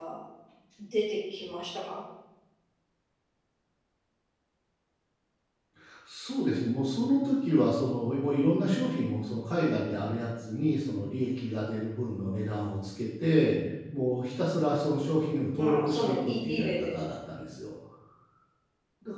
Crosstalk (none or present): present